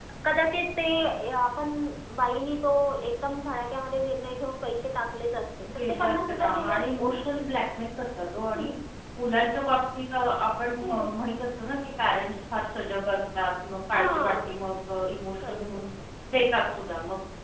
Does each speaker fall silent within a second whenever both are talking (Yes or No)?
No